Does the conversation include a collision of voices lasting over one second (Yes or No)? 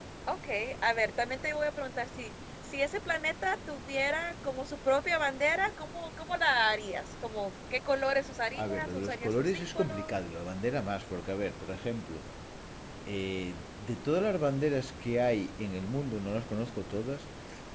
Yes